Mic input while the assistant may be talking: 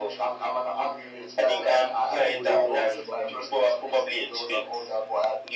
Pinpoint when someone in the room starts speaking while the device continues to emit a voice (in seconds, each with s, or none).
2.1 s